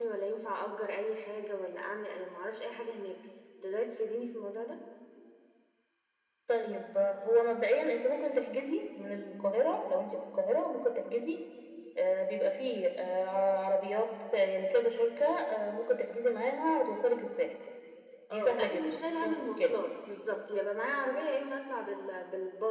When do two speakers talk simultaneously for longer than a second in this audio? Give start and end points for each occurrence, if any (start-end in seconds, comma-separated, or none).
18.3-19.8